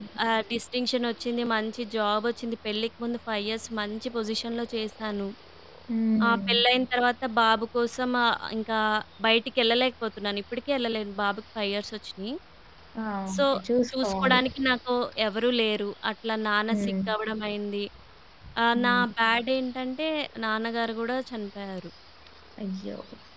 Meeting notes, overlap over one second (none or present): none